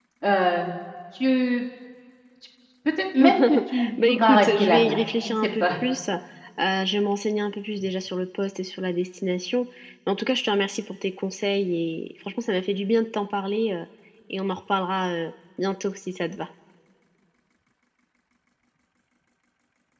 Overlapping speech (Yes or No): Yes